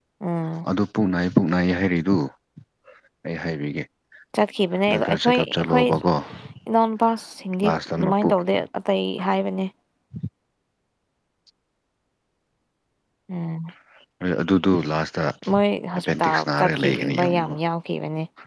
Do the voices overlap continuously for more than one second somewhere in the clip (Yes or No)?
Yes